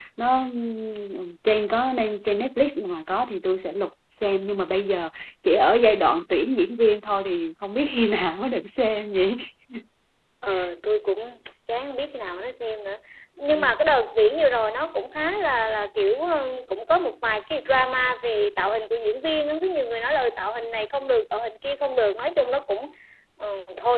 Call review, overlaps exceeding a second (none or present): none